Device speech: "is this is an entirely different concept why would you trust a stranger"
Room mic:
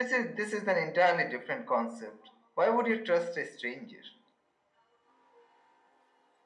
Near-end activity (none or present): none